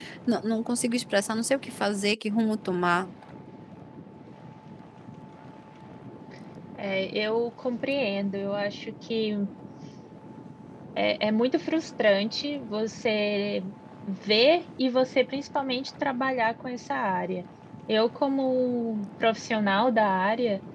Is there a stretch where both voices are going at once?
No

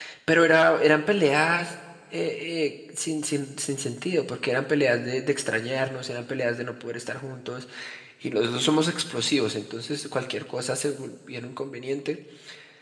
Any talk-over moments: No

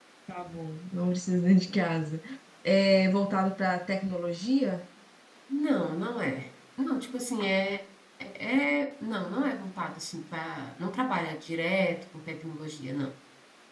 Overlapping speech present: No

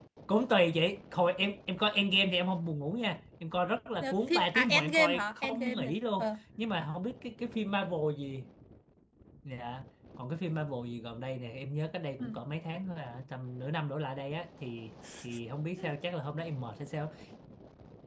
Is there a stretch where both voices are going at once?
Yes, from 4.0 s

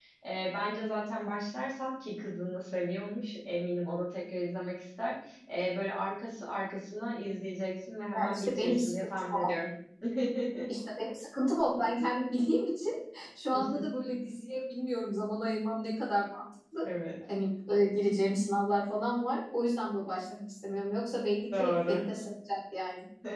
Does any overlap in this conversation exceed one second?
Yes, from 8.2 s

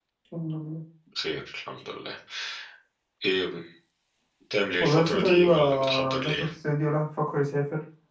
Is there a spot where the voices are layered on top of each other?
Yes, from 4.8 s

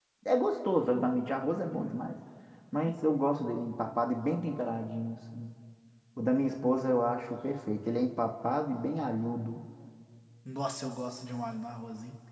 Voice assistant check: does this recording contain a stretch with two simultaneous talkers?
No

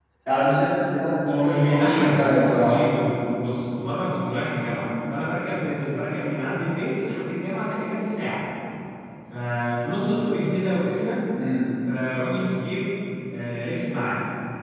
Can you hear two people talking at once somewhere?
Yes, from 1.3 s

